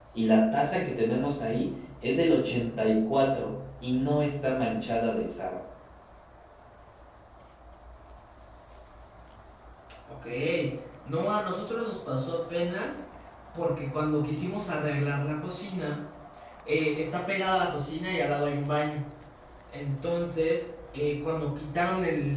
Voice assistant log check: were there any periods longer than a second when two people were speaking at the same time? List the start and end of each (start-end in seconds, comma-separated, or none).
none